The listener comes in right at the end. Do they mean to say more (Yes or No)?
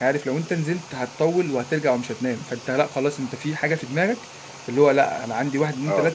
No